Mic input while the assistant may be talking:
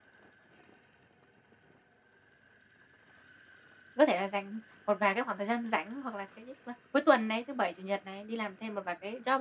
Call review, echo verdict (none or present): none